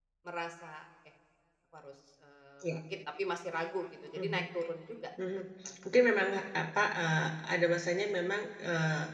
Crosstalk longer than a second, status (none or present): none